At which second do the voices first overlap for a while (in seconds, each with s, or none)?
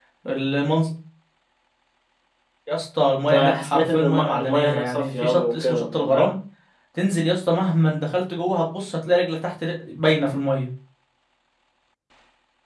3.3 s